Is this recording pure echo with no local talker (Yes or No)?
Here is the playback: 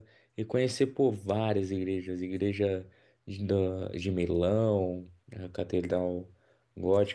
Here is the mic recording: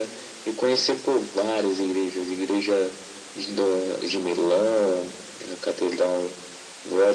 Yes